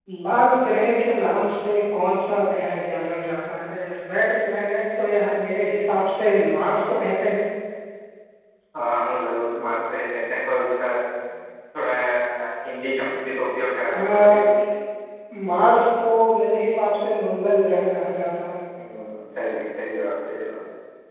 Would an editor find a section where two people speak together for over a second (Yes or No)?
No